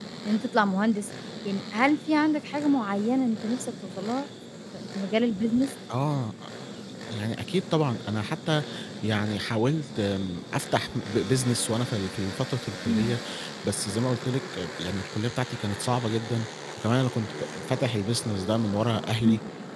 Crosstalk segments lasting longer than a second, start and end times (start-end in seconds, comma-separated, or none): none